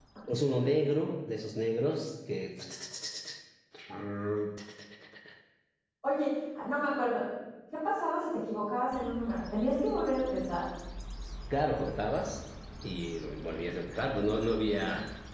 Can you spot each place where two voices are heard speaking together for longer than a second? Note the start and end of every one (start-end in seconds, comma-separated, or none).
none